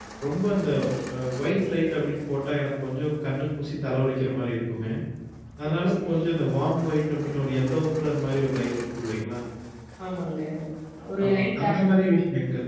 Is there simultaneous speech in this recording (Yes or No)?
Yes